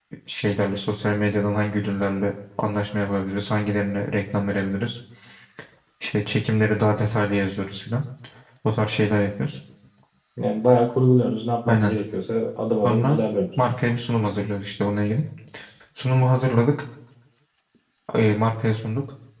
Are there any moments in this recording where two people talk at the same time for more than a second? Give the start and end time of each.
none

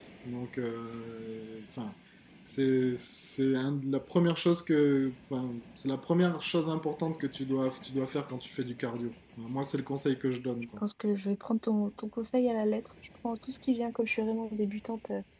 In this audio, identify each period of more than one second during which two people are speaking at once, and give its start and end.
none

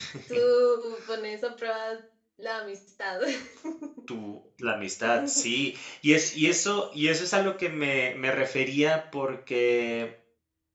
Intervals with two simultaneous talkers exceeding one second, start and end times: none

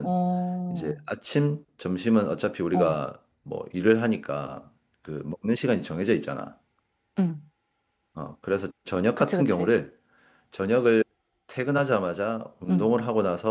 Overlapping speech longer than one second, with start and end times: none

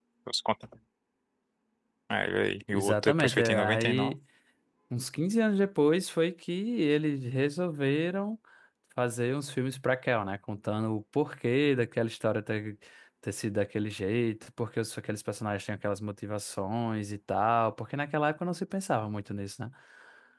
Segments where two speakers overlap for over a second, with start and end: 2.7-4.2

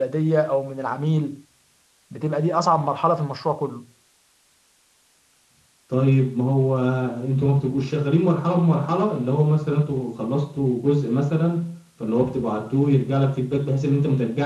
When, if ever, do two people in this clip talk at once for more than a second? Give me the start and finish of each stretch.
none

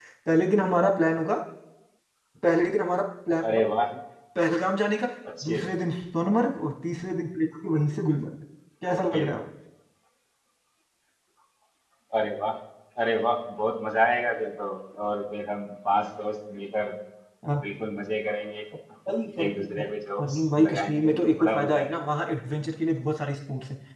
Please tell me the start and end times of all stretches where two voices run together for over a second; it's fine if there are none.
20.2-22.0

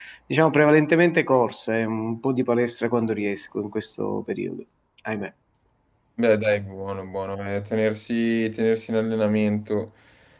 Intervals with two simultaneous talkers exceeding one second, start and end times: none

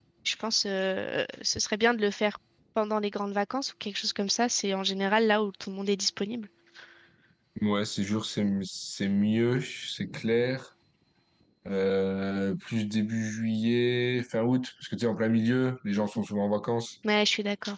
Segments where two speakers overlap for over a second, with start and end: none

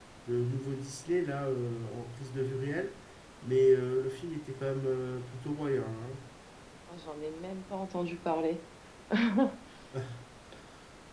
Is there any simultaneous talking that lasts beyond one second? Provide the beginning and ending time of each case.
none

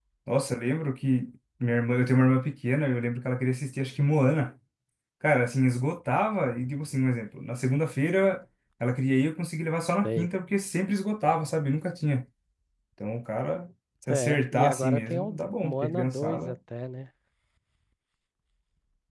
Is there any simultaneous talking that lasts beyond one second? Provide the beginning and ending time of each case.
14.1-16.5

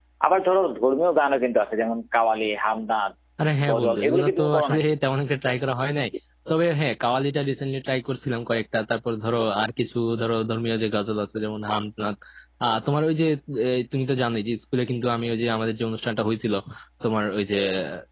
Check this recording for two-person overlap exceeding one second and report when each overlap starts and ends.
3.7-4.9

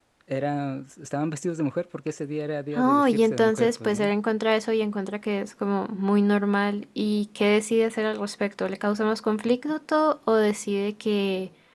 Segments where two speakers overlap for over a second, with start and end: 2.8-4.1

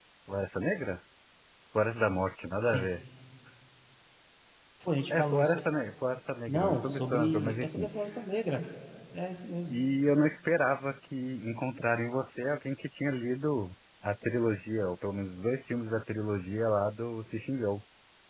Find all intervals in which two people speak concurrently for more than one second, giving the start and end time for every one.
6.5-7.9

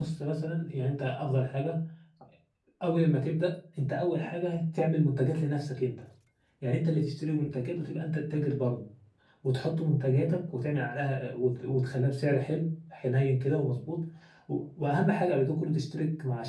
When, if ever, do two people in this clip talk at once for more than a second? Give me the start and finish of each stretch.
none

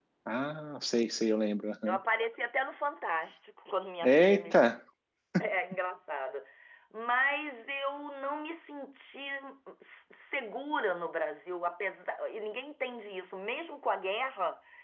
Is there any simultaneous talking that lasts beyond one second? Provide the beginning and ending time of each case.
none

